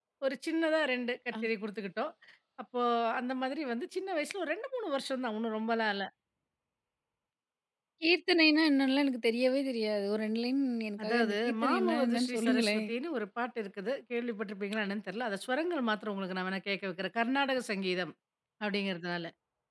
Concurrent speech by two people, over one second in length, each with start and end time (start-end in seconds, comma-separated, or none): 11.0-12.9